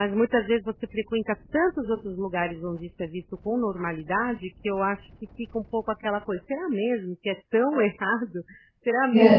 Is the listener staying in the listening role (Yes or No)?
Yes